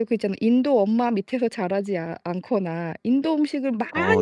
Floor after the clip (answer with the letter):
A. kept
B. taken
A